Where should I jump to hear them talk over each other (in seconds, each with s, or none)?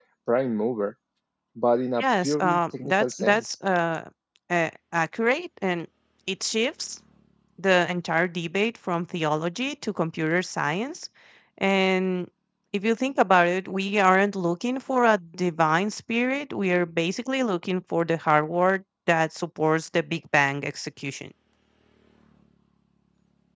2.0 s